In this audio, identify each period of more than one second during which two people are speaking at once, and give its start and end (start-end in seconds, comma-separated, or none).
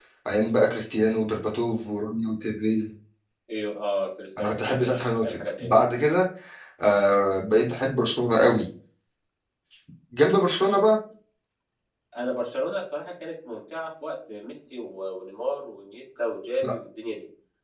4.4-5.7